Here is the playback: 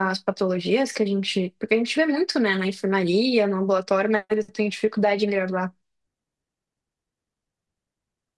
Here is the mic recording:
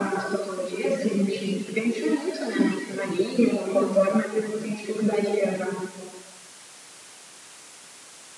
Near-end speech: none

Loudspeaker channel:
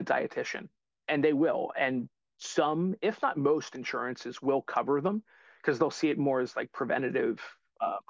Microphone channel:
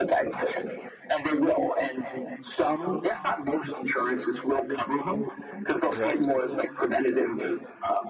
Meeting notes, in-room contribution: present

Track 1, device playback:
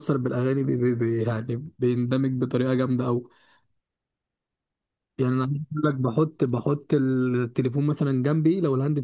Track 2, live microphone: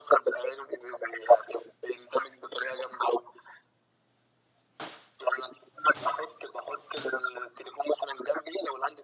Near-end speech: none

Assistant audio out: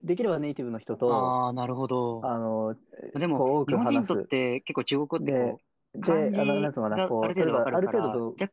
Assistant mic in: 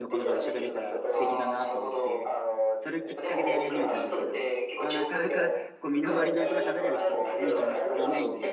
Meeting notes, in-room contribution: present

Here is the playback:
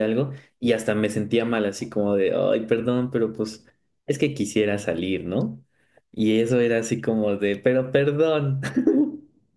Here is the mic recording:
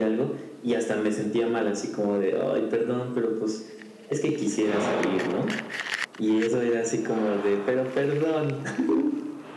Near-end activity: none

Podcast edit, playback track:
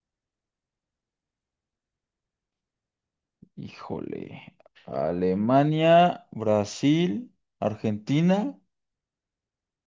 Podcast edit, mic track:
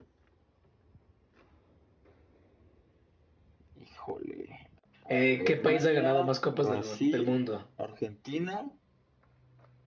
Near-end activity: present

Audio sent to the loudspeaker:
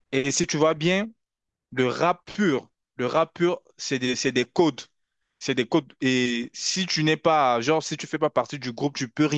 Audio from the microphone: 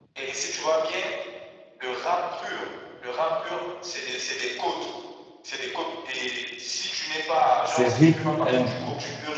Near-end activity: present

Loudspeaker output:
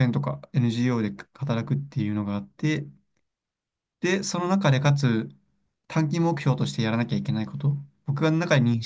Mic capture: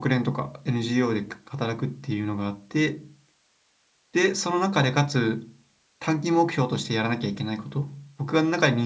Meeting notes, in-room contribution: none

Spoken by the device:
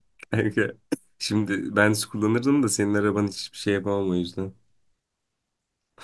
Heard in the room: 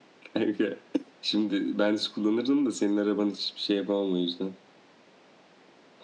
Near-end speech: none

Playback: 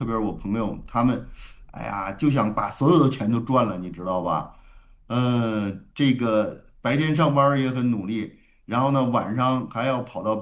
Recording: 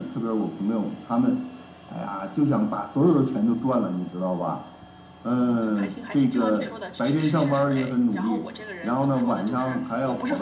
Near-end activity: present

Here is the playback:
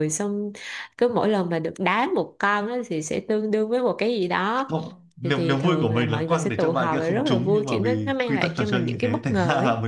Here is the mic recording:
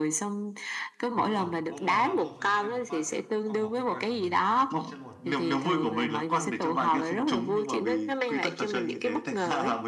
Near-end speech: present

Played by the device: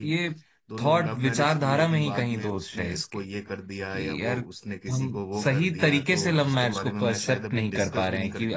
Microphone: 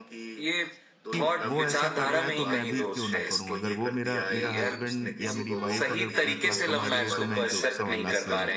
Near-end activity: present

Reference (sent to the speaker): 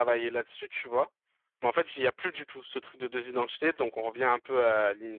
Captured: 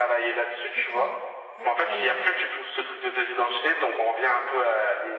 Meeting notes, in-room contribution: present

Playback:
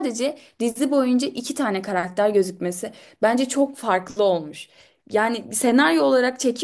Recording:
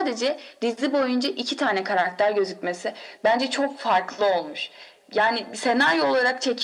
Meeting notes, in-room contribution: none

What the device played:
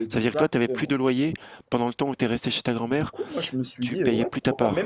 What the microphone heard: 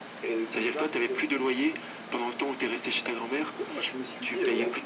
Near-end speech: none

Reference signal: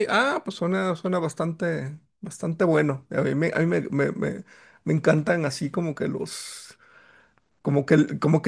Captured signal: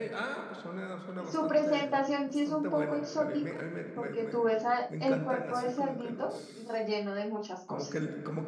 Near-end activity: present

